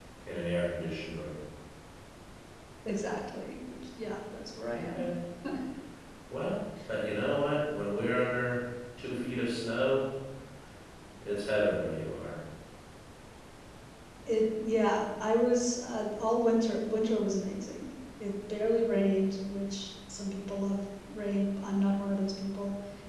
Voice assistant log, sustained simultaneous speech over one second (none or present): none